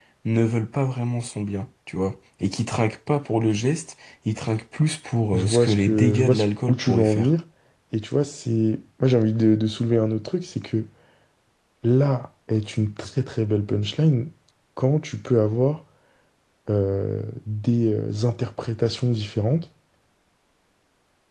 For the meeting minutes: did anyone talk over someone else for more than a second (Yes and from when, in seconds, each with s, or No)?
Yes, from 5.3 s